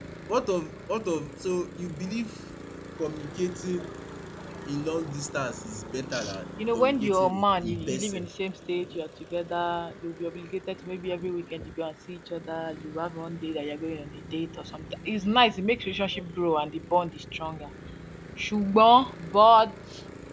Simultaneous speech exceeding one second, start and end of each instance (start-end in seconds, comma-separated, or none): 6.7-8.3